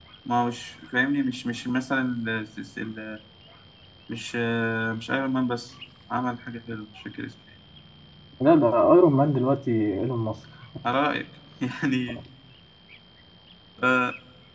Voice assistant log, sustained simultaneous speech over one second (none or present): none